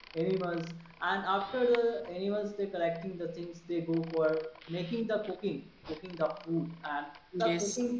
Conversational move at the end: listening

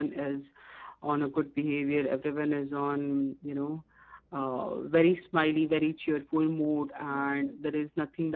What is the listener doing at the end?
listening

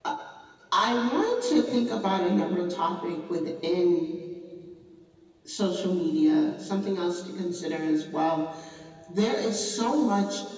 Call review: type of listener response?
listening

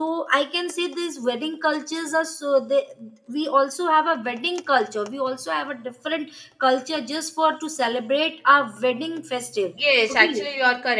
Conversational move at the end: taking over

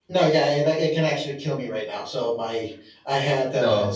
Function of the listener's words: listening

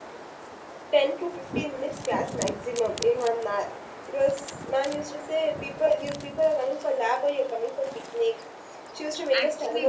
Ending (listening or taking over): taking over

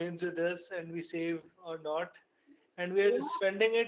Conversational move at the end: listening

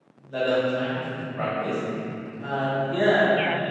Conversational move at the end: listening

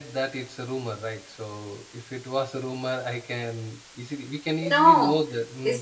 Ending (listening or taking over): taking over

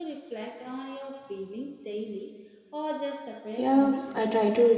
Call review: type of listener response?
taking over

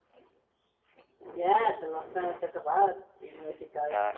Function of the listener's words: taking over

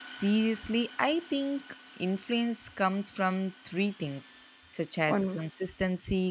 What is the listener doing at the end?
listening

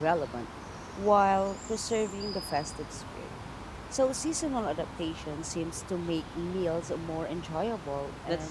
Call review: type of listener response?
taking over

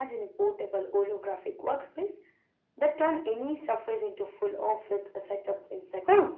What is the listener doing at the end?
taking over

